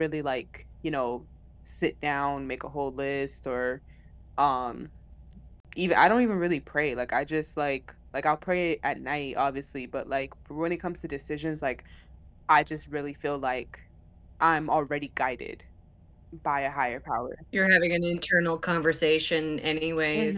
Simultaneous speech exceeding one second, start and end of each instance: none

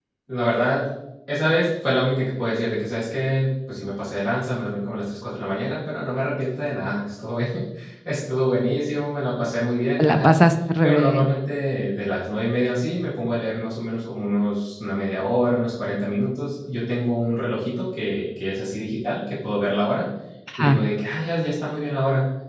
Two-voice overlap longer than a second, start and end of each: none

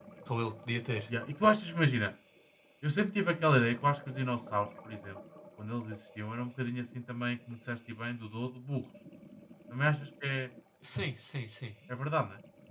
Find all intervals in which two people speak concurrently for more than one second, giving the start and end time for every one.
none

